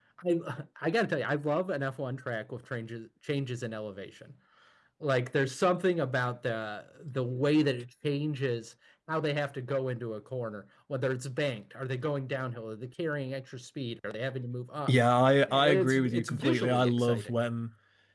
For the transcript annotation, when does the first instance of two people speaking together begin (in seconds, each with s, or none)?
15.5 s